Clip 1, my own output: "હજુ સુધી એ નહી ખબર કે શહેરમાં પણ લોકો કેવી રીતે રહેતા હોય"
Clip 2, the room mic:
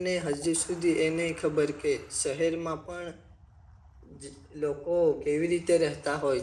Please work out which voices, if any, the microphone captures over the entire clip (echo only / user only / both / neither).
echo only